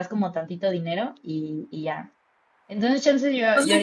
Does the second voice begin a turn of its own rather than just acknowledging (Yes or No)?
Yes